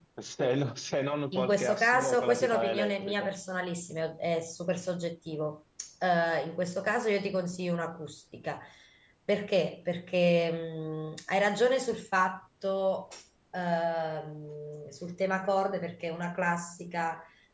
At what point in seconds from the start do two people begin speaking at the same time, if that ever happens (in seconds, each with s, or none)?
1.3 s